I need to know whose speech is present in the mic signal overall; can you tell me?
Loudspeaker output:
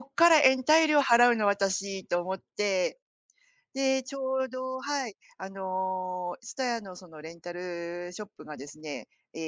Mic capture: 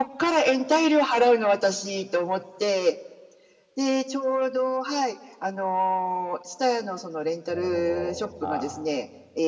both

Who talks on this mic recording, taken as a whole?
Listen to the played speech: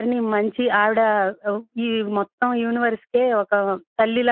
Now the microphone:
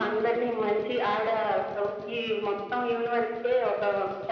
echo only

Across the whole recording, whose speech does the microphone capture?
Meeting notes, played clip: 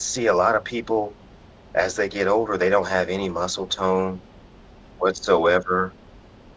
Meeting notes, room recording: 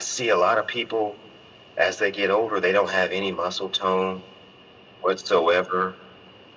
echo only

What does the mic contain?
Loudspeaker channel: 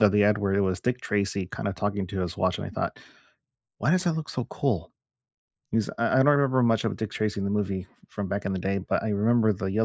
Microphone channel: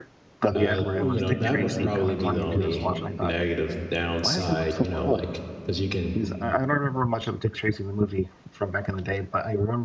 both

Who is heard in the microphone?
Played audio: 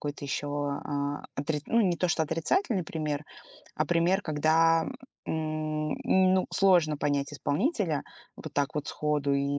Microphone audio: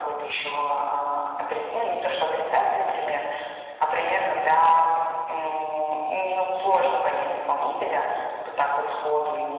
echo only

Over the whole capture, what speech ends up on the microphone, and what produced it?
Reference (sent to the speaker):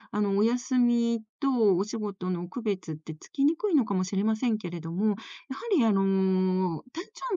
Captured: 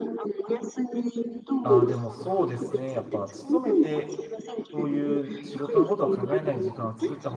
both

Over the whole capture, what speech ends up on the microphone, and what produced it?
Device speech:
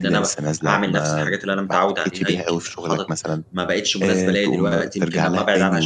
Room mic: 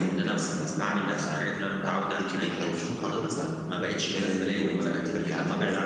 both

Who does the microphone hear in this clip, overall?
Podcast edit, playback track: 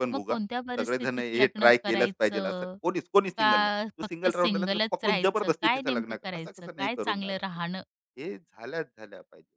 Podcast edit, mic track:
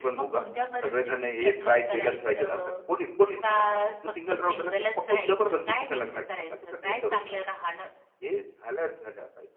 echo only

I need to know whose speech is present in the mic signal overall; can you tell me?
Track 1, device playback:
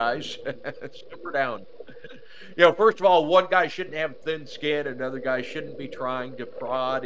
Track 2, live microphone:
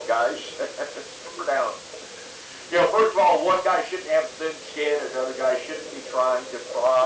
echo only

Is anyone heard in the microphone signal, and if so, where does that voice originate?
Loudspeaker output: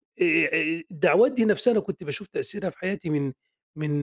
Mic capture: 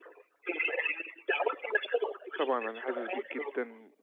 both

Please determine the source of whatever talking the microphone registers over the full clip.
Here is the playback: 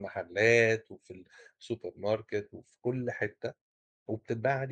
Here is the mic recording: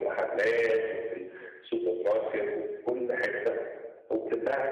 echo only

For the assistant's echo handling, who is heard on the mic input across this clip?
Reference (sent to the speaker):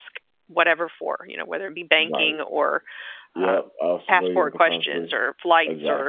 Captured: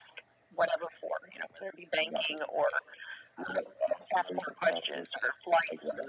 echo only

